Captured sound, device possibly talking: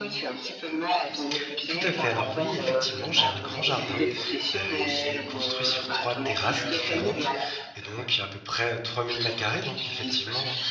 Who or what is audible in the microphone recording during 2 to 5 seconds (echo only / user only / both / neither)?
both